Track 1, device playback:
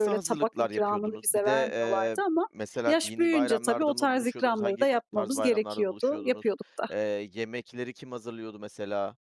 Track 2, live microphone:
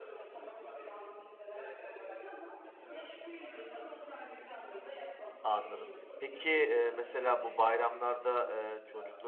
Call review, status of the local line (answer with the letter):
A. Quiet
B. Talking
B